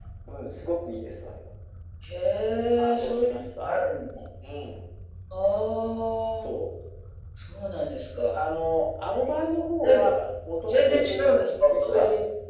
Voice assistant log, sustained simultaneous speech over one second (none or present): present